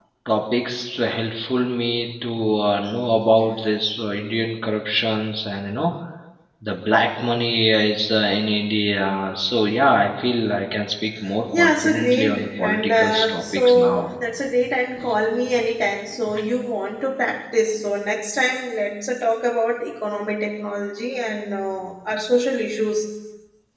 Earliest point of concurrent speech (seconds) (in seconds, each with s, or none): 11.5 s